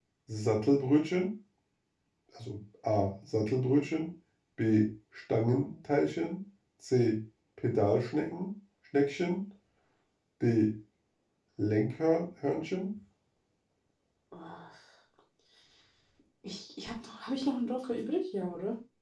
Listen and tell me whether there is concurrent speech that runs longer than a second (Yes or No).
No